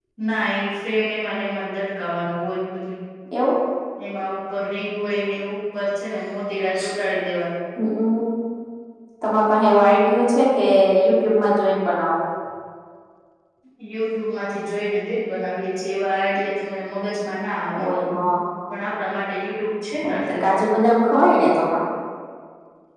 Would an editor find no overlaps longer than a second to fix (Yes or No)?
Yes